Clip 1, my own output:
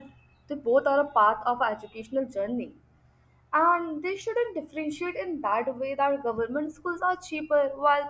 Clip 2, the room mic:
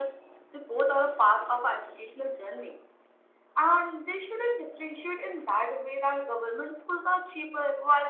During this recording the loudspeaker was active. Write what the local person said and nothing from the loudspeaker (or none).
none